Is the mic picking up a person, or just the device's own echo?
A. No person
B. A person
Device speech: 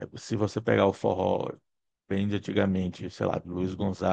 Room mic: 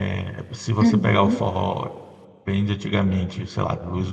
B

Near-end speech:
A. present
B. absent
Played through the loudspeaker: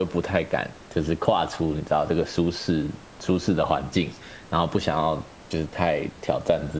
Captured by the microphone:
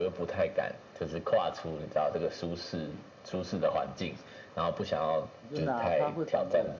A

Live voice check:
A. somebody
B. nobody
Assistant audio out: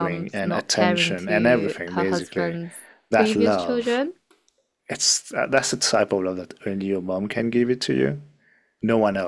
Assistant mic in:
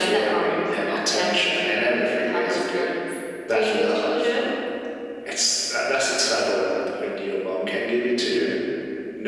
B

